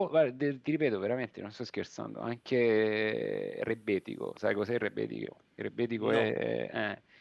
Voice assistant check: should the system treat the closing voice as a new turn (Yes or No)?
No